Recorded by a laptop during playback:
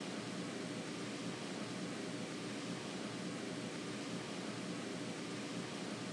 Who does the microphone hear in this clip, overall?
neither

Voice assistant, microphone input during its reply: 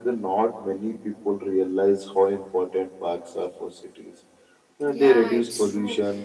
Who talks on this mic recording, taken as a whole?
both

